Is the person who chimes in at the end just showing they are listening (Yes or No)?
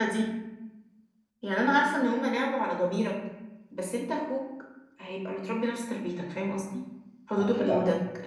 Yes